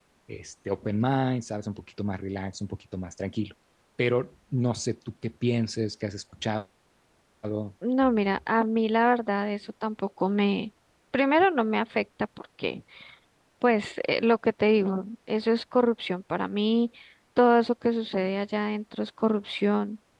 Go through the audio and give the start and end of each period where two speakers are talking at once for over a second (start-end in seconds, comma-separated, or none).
none